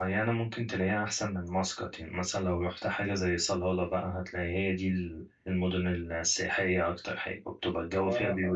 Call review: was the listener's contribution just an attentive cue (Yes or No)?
No